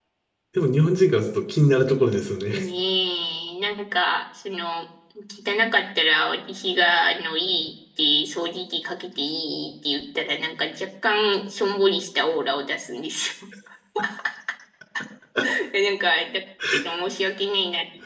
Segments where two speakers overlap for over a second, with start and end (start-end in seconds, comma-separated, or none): none